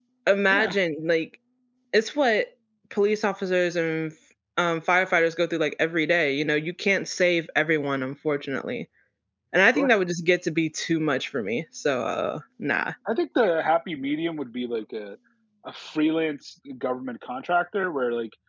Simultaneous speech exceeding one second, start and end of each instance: none

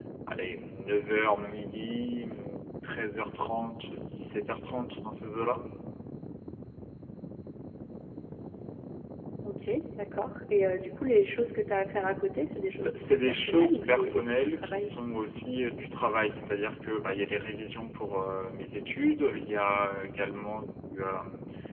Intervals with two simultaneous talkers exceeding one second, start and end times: 12.8-14.9

